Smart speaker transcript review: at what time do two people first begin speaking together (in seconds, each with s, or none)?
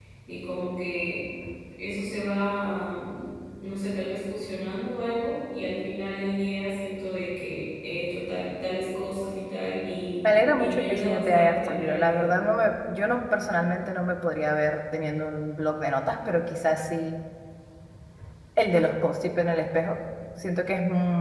10.2 s